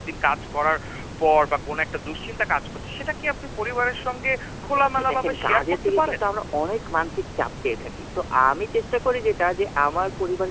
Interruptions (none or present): present